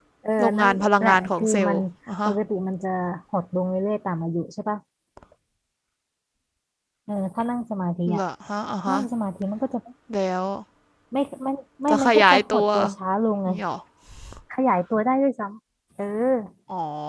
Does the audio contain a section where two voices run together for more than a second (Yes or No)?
Yes